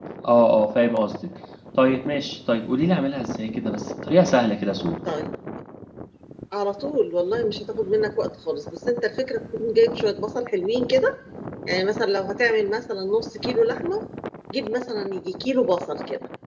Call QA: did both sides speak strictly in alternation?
Yes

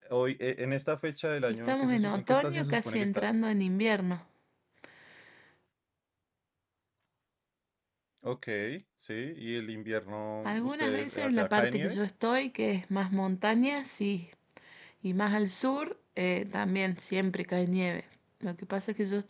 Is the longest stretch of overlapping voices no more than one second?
No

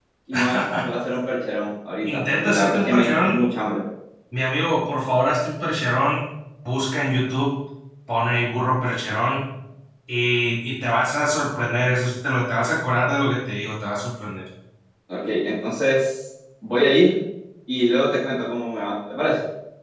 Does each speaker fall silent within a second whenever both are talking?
No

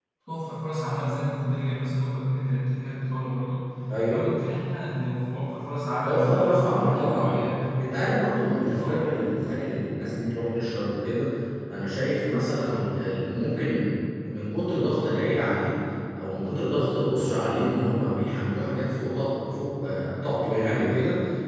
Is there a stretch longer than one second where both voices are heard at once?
Yes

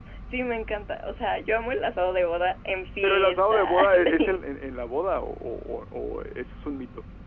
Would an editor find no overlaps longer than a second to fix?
No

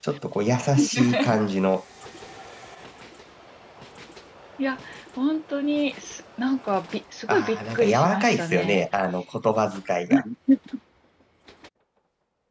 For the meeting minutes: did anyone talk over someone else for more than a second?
Yes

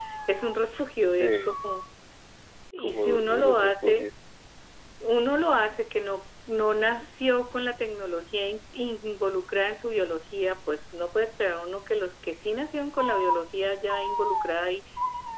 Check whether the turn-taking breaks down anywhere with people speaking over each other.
Yes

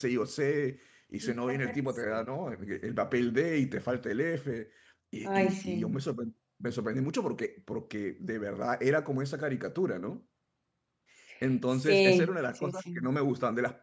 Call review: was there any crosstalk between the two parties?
Yes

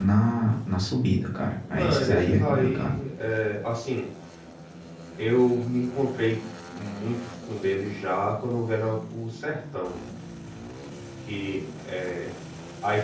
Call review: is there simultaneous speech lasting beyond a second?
Yes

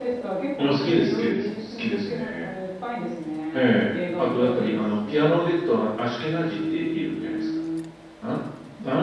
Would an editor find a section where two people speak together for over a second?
Yes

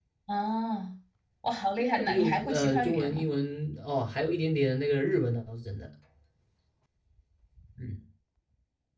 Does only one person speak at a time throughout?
No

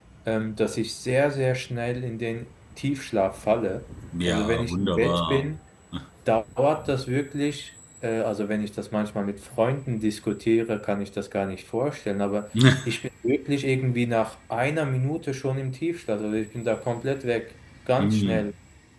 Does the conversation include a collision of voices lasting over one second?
Yes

